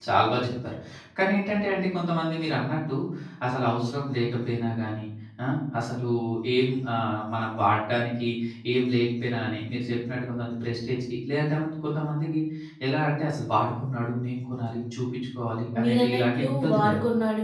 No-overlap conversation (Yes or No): No